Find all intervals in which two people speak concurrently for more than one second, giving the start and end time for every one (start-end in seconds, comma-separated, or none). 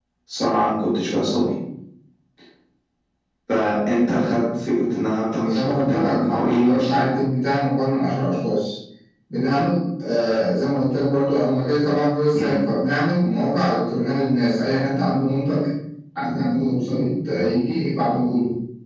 5.4-7.1